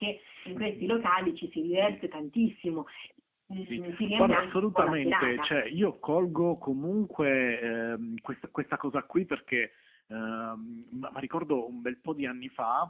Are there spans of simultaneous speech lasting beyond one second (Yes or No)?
Yes